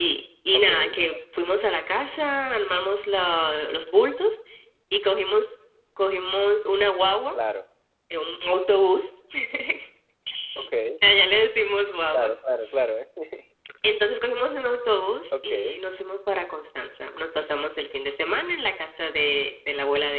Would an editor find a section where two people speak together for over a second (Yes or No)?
No